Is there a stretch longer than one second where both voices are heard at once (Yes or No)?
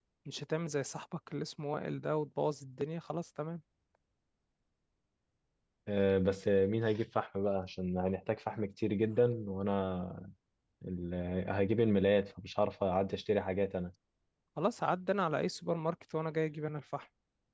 No